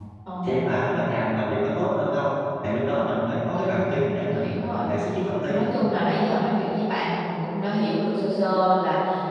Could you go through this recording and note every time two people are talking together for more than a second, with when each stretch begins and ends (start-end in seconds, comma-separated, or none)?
3.5-4.9